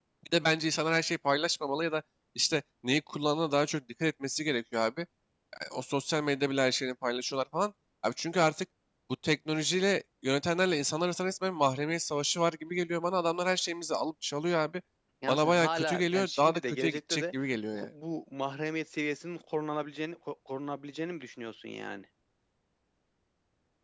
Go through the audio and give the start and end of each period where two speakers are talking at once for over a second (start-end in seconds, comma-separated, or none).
15.3-17.2